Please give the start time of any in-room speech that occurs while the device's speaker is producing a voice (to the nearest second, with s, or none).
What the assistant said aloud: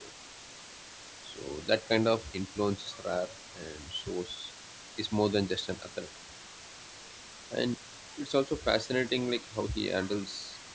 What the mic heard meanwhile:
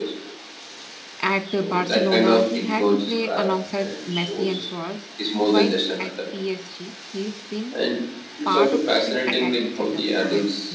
1 s